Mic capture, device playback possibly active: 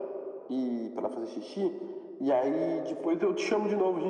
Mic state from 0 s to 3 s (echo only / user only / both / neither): echo only